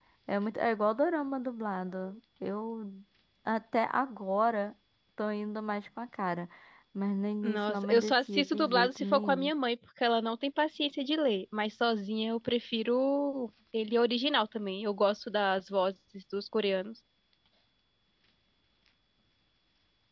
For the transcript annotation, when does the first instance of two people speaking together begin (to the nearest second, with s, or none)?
7 s